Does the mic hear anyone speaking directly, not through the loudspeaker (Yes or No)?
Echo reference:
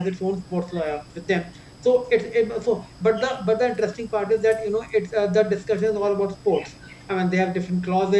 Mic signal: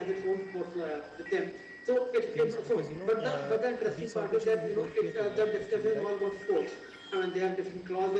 Yes